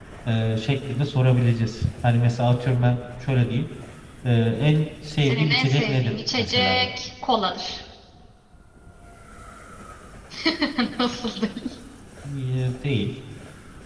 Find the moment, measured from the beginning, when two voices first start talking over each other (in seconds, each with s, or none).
5.2 s